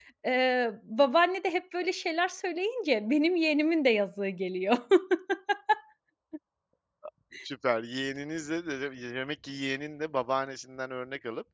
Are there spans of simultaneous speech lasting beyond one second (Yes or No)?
No